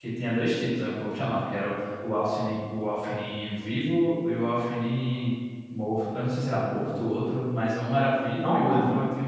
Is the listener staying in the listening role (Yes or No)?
Yes